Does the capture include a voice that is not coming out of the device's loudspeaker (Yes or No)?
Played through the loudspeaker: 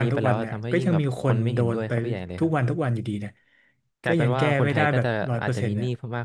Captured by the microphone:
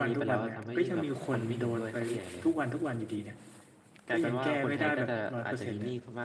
No